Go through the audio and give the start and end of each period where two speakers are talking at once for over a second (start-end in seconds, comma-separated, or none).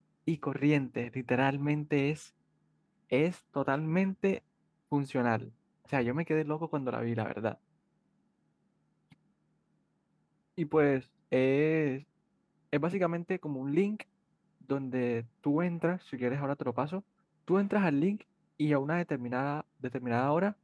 none